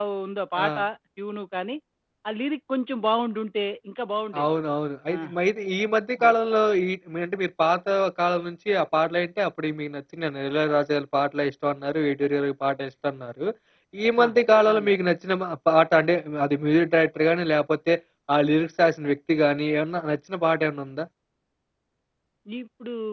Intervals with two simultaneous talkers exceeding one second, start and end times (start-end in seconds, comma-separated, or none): none